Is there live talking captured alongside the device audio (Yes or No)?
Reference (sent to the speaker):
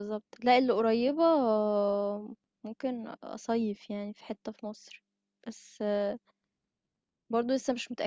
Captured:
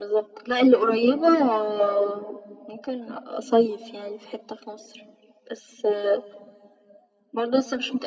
No